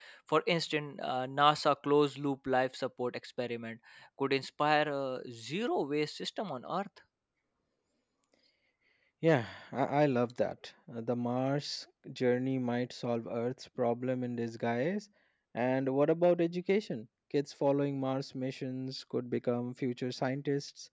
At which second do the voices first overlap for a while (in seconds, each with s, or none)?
none